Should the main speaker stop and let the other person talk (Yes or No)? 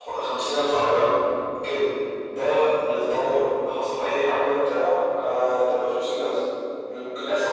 No